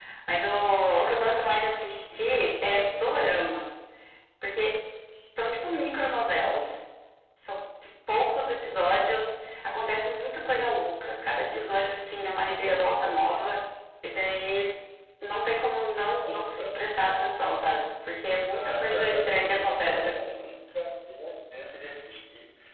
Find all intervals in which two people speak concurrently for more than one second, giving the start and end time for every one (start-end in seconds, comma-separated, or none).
18.5-20.2